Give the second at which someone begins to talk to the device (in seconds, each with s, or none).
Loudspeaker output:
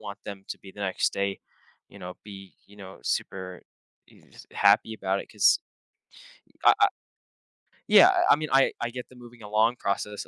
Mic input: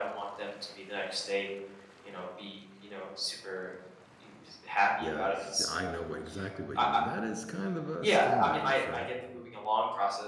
5.0 s